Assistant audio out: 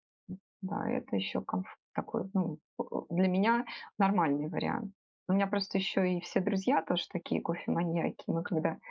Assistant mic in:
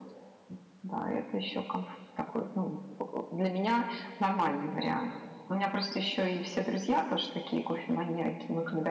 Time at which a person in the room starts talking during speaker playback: none

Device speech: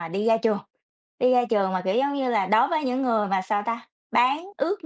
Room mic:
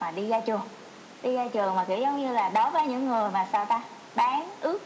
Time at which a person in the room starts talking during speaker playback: none

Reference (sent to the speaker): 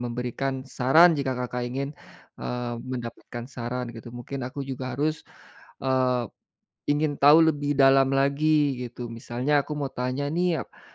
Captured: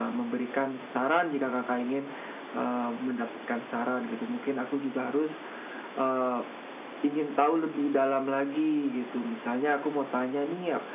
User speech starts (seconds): none

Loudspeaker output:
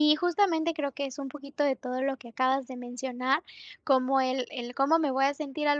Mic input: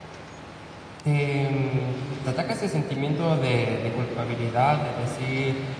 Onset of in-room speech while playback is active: 1.0 s

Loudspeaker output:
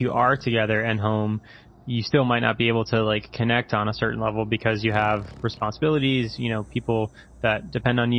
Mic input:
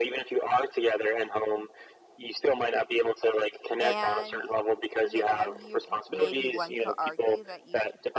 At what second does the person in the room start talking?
3.8 s

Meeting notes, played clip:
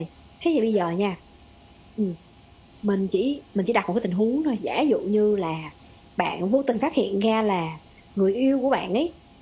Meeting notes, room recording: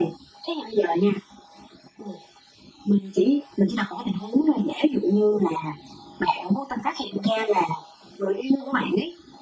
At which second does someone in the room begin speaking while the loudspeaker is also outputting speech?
none

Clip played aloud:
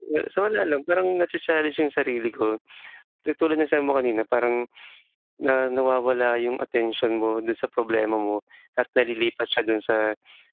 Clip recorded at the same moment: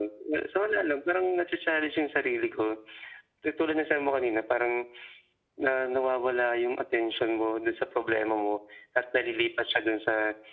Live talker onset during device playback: none

